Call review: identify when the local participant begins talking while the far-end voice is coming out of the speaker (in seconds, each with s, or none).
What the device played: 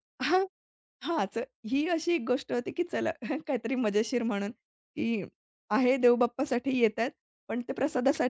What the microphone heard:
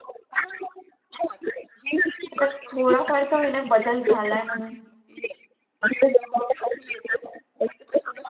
2.3 s